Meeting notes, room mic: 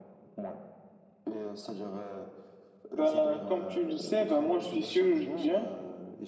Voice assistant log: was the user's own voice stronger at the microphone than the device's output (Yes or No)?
Yes